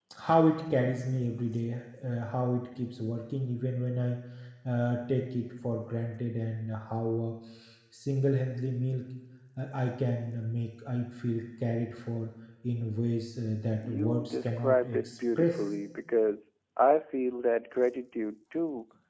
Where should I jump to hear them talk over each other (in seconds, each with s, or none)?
13.8 s